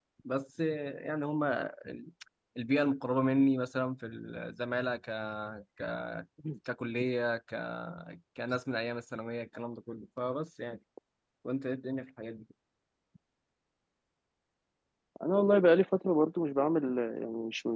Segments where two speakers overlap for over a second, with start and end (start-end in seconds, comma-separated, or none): none